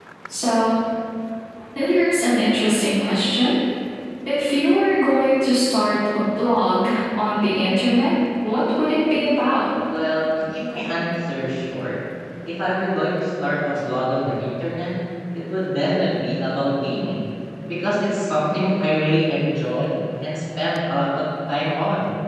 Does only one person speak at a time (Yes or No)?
Yes